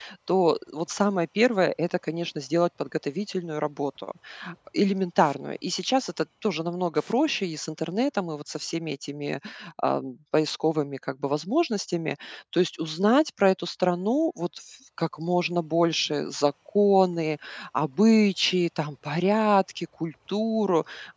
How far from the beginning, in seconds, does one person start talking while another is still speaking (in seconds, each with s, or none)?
none